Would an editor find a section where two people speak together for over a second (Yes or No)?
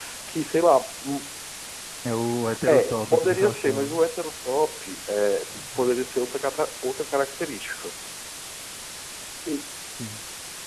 Yes